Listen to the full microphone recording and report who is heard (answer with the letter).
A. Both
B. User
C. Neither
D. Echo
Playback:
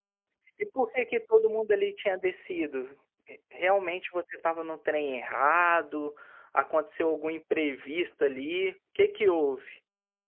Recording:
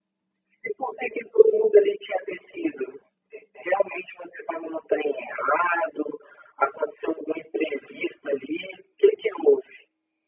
D